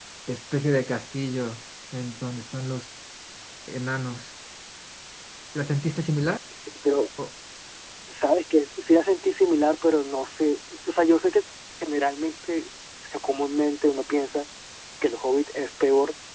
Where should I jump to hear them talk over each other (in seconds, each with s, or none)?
none